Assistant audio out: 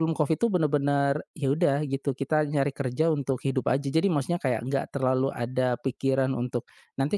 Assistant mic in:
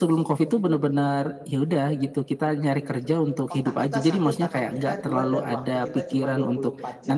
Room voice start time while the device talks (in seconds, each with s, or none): 3.5 s